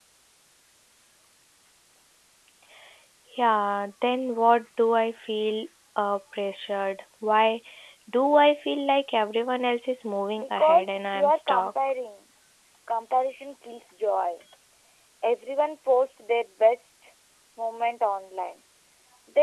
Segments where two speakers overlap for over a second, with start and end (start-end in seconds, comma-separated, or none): 10.4-11.7